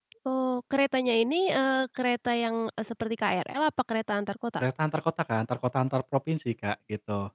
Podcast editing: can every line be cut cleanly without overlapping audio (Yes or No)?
Yes